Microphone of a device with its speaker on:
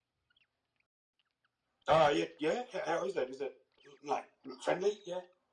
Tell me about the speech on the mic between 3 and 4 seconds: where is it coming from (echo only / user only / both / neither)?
echo only